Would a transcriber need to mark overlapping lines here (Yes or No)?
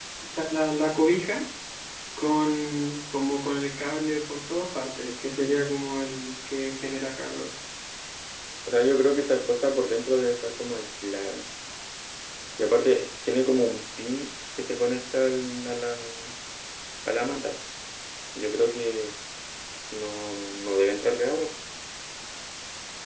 No